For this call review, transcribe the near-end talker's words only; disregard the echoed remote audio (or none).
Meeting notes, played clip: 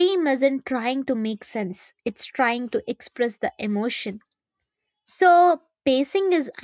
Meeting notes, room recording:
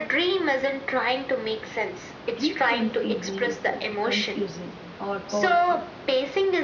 dream can feel meaningful, confusing, or powerful,